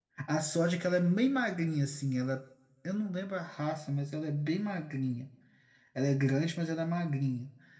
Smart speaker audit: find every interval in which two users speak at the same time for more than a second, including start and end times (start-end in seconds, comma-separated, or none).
none